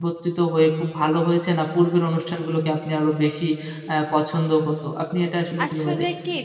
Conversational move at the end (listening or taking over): taking over